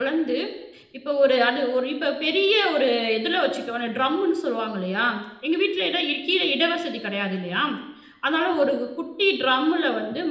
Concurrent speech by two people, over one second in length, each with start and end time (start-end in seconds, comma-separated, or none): none